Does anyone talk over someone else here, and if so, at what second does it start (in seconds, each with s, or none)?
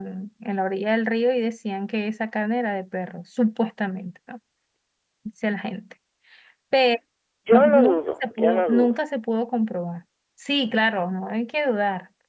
7.5 s